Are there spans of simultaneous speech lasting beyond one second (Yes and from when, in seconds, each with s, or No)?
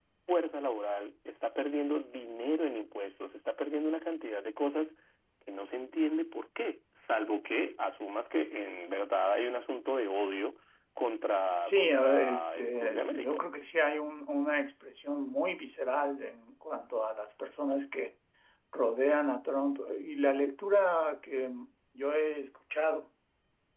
Yes, from 11.6 s